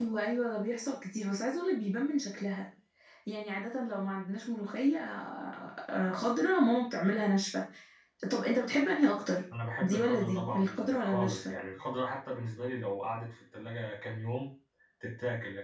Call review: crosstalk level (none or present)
present